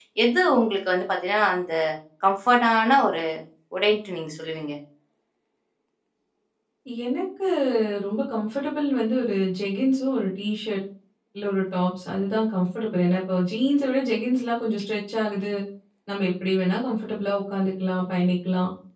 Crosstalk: none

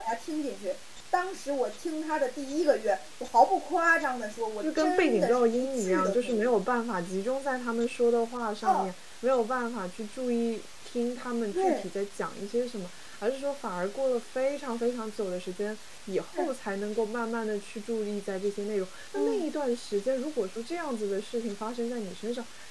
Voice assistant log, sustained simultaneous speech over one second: present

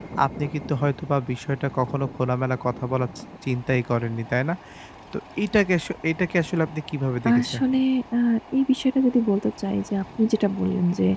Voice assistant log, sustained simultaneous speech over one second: none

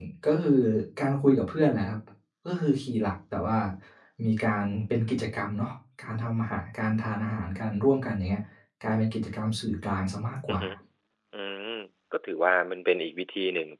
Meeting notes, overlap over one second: none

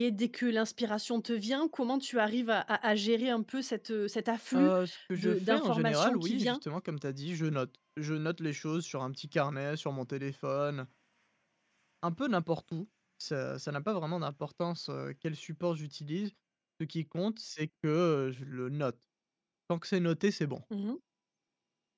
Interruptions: present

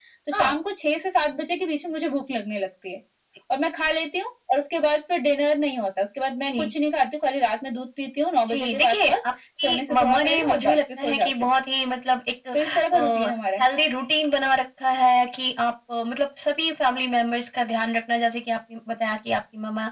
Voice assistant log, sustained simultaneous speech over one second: present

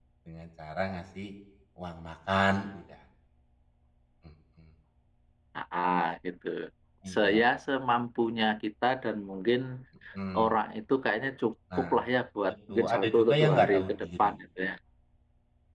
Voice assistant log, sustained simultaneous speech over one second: present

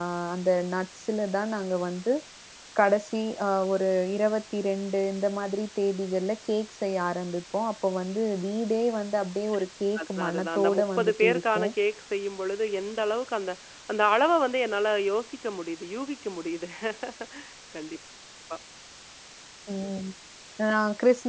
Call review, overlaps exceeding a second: present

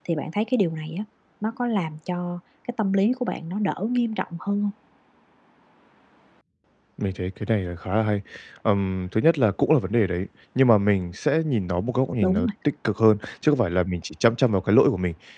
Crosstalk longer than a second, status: none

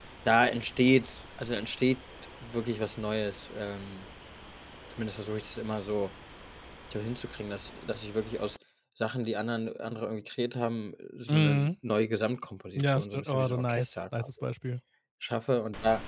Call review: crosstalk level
present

